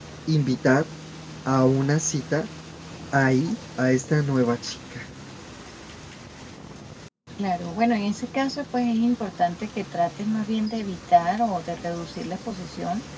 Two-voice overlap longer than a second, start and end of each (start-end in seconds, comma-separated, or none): none